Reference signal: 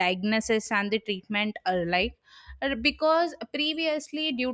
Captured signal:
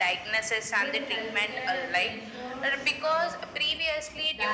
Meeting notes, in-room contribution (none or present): present